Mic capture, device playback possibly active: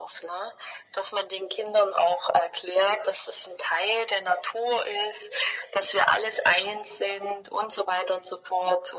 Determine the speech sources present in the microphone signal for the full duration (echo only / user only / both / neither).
echo only